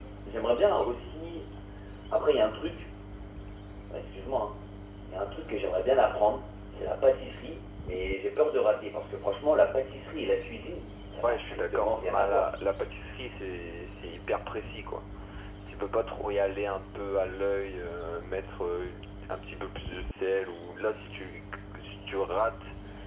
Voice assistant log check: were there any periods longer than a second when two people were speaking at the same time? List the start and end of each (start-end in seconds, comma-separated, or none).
11.2-12.5